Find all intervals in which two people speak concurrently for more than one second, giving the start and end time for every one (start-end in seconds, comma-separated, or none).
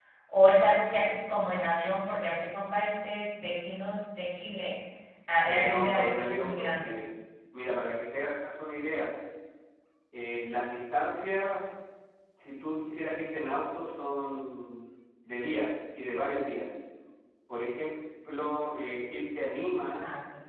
5.5-6.9